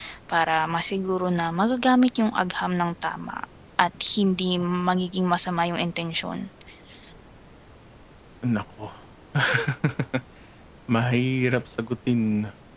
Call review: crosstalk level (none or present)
none